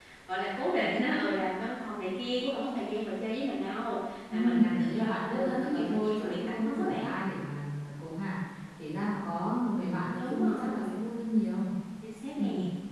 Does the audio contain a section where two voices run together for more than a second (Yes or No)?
Yes